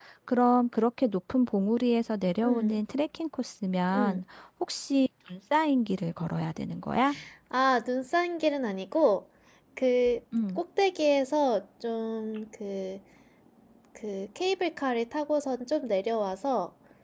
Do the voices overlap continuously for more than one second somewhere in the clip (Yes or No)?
No